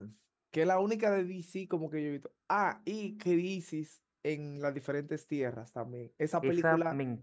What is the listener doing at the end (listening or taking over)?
taking over